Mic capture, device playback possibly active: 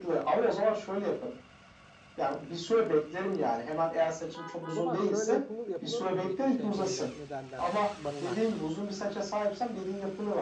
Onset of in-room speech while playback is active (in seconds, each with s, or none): 4.6 s